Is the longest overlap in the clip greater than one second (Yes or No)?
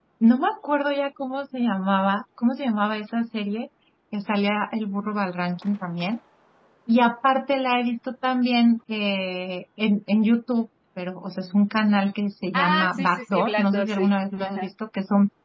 Yes